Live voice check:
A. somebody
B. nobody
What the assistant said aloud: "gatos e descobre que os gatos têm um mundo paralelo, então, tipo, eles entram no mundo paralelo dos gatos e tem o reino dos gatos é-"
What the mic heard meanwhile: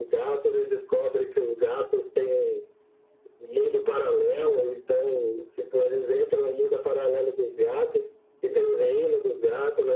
B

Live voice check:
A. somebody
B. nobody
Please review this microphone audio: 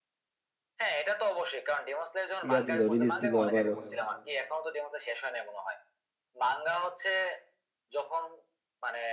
A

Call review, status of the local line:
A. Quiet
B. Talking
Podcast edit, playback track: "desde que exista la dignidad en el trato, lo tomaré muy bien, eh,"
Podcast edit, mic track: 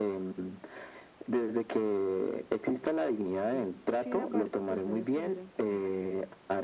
B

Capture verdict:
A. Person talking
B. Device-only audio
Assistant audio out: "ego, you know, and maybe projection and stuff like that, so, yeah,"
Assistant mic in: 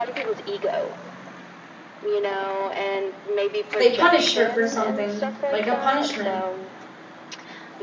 A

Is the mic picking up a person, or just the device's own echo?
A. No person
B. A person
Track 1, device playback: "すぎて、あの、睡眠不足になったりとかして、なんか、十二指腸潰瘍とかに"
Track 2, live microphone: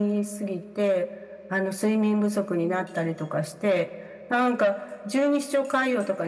A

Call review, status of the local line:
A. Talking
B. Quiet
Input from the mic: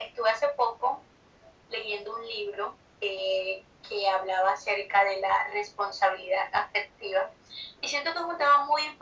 B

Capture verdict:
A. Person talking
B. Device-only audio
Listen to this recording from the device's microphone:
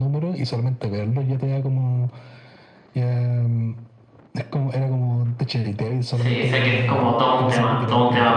A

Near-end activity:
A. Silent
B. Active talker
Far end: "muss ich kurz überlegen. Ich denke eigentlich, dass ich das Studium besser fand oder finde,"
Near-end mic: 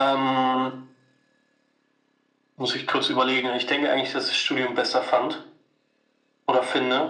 A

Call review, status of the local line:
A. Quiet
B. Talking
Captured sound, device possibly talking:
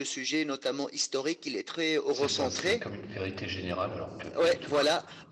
B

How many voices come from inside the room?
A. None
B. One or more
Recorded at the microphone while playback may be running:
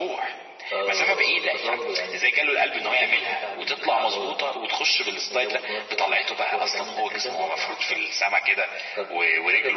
A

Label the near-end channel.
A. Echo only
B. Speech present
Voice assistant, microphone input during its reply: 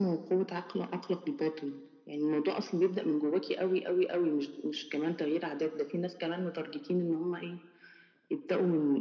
A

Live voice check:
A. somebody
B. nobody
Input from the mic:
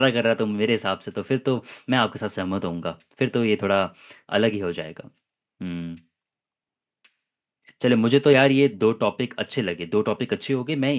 A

